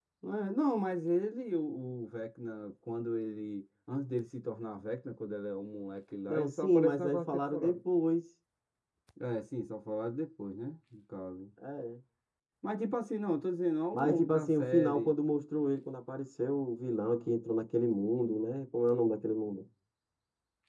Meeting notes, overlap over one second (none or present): present